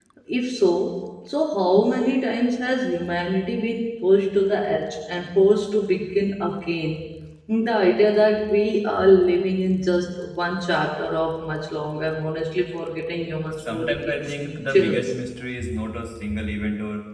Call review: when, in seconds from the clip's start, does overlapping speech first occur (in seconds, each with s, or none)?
13.5 s